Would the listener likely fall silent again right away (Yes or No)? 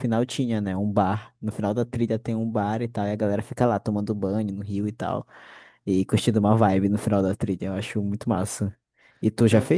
Yes